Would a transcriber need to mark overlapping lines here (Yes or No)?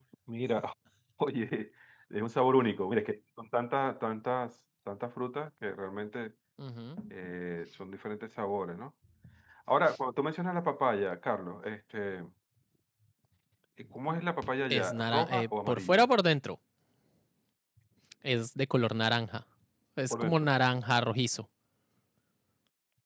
Yes